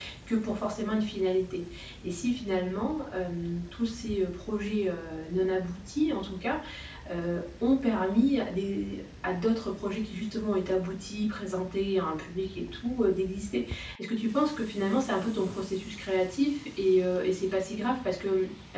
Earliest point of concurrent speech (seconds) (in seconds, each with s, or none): none